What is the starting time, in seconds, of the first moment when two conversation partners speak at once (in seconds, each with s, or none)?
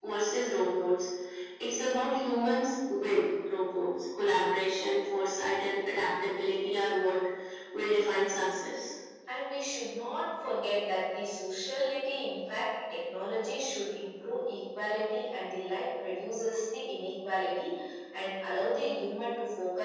none